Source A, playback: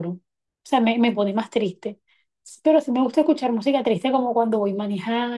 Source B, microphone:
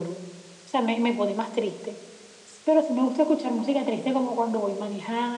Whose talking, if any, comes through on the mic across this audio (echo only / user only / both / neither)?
echo only